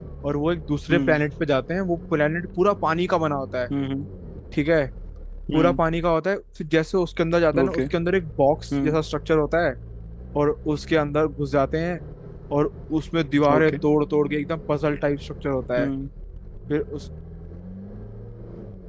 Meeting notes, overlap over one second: none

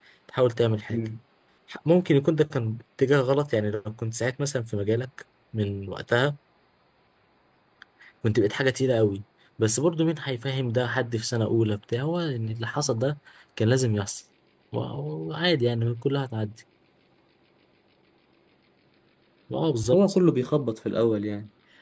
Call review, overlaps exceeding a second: none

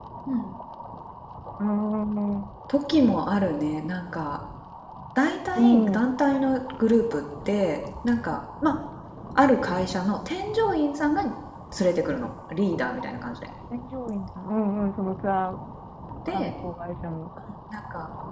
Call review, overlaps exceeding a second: none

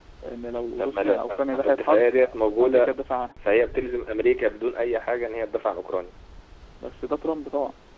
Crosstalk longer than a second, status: present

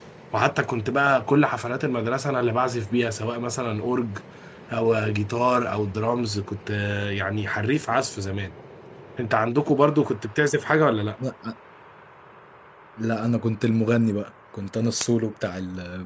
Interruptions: none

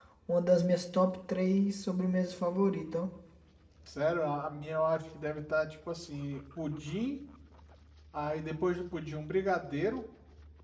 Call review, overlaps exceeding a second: none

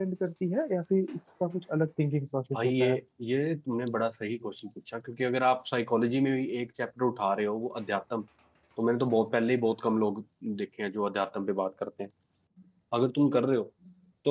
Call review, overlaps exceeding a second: none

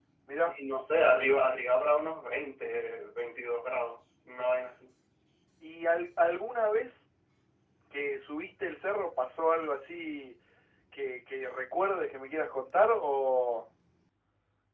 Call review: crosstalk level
none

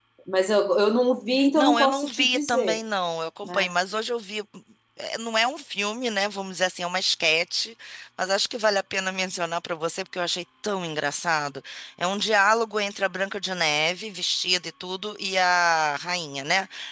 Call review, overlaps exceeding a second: present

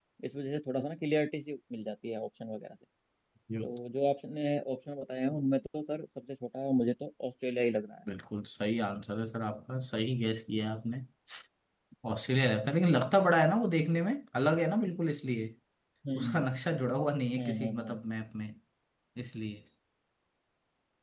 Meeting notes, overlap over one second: none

